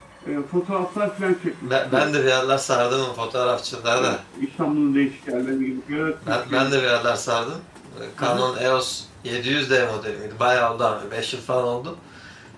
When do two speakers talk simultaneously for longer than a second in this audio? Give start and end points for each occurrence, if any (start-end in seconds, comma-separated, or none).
none